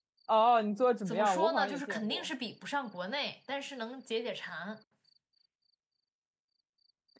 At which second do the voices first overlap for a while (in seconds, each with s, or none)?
1.0 s